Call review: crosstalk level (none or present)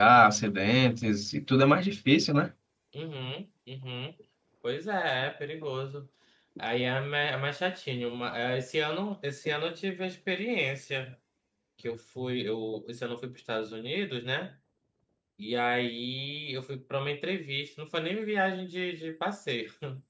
none